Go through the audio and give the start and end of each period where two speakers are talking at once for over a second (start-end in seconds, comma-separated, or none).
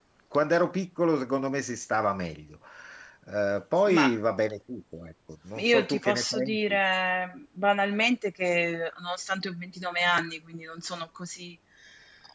5.6-6.8